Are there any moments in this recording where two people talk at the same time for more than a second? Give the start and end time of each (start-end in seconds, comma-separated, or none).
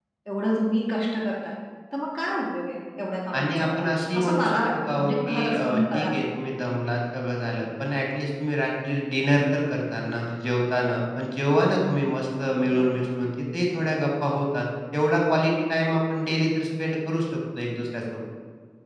4.2-6.1